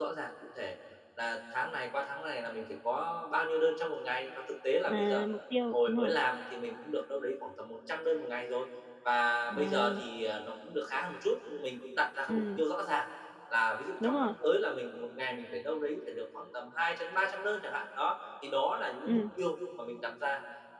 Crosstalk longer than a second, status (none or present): none